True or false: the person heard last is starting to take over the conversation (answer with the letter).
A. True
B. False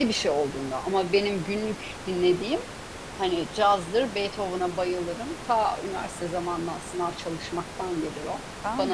A